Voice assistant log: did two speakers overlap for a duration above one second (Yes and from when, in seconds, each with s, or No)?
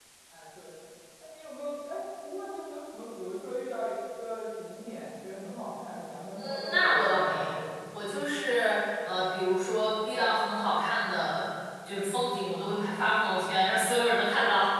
Yes, from 6.4 s